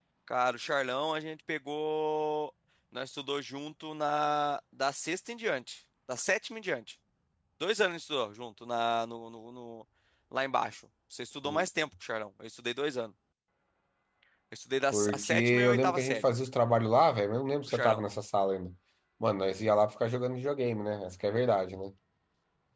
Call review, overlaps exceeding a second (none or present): present